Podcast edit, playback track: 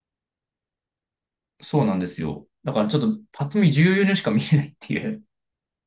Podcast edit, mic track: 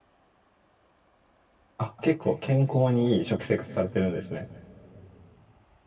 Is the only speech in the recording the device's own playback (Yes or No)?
No